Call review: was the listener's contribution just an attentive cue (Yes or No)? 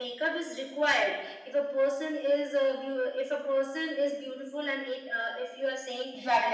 No